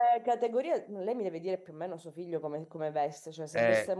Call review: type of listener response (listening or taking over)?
listening